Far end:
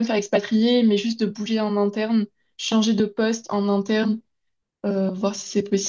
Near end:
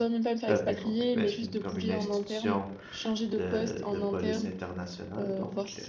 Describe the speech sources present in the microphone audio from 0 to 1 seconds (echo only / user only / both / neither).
both